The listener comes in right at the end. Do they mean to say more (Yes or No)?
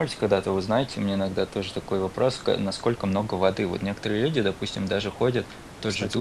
No